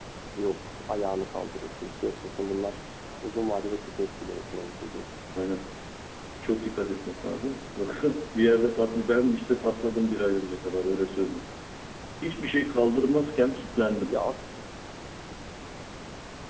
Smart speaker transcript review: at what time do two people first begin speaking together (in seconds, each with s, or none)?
none